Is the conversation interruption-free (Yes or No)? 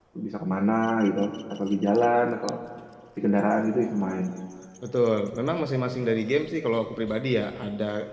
Yes